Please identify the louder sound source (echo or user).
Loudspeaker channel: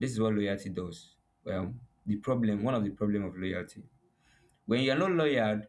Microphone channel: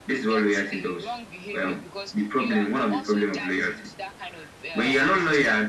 echo